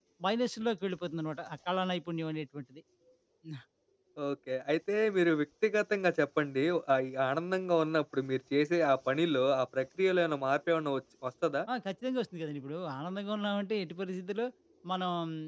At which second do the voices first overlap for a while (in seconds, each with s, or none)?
none